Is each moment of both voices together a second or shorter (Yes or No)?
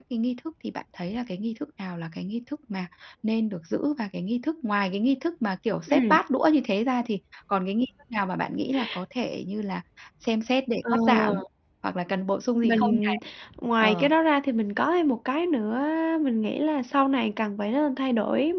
Yes